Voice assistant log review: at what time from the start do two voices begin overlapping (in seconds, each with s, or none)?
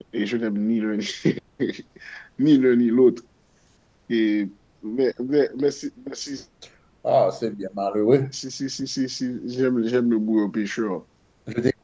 none